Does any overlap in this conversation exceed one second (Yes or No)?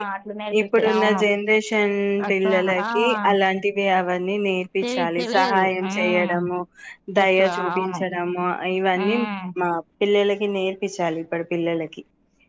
Yes